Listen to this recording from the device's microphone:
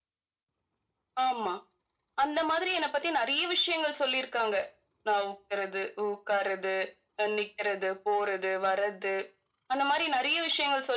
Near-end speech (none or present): none